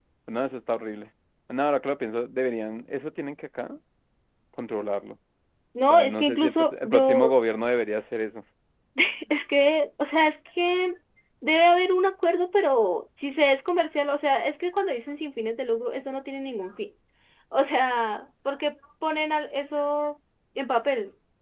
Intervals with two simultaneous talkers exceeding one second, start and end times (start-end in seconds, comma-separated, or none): 5.9-7.3